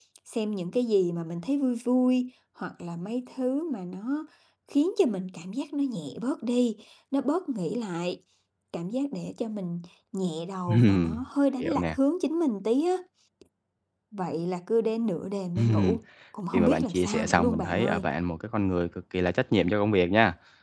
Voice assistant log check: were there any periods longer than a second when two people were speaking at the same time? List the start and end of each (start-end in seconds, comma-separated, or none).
16.5-18.1